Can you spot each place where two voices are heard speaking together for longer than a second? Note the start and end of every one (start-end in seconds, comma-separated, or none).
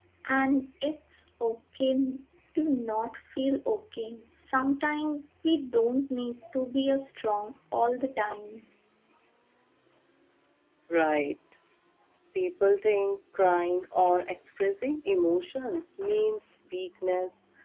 none